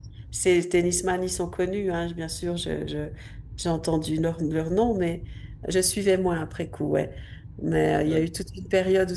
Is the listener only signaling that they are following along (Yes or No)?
Yes